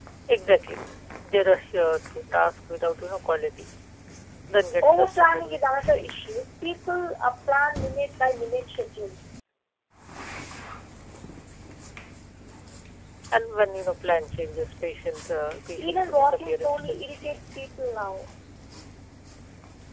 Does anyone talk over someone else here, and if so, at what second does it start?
4.8 s

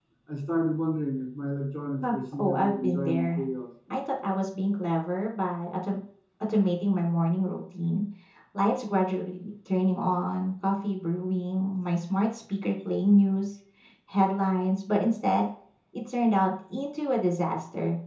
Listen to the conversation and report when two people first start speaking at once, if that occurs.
2.0 s

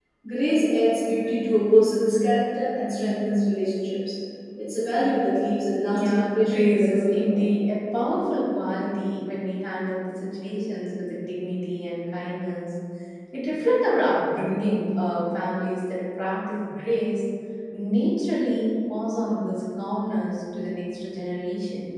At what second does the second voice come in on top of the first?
5.9 s

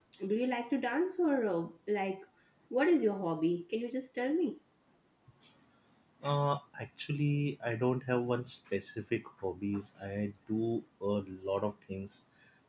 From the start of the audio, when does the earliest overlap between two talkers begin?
none

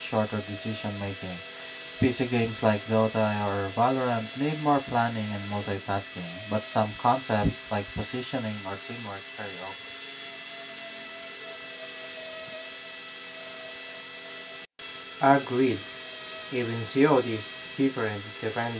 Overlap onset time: none

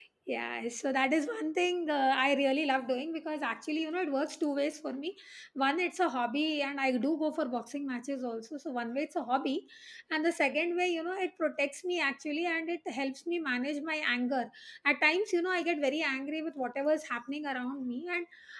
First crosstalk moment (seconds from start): none

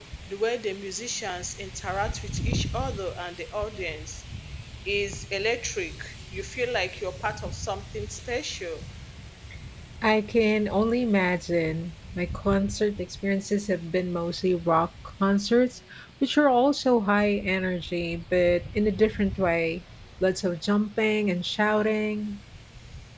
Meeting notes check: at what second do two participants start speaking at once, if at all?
none

